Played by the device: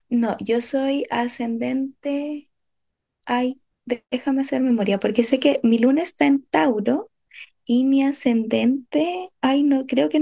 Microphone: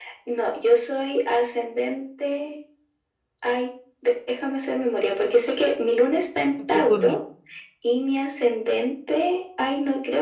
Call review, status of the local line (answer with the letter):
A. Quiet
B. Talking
B